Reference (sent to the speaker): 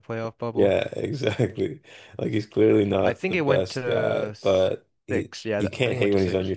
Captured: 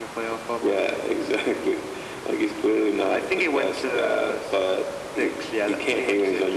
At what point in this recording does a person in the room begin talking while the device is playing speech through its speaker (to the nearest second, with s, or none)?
none